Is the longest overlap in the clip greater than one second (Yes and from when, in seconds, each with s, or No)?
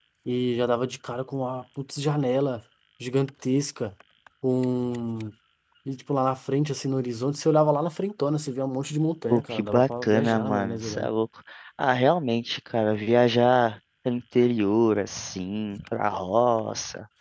Yes, from 9.3 s